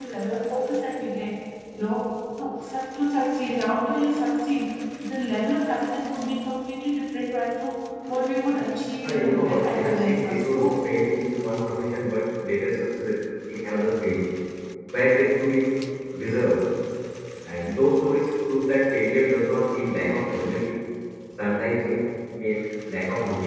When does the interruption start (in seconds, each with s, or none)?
9.0 s